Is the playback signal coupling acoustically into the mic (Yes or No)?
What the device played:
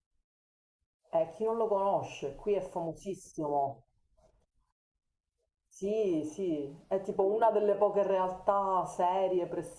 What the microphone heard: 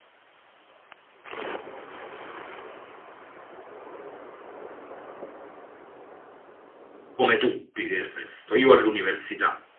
No